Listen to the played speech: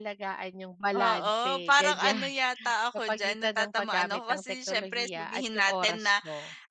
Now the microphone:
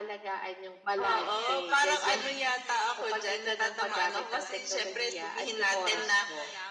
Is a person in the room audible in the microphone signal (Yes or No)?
Yes